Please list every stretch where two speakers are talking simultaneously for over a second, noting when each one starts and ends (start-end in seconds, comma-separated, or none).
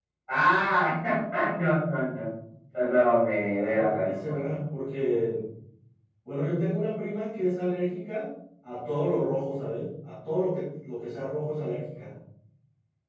3.4-4.6